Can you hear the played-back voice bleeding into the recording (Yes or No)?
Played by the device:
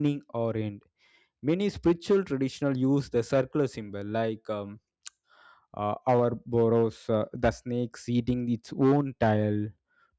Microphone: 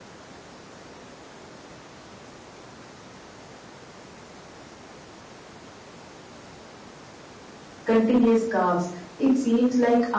No